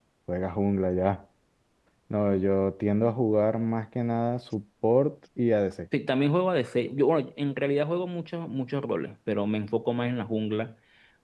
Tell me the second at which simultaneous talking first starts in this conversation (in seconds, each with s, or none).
none